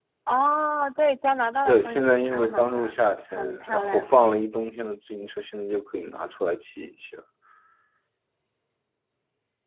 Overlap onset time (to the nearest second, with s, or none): 2 s